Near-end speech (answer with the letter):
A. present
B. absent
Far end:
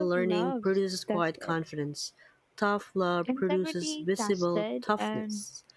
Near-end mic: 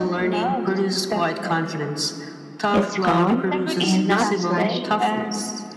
A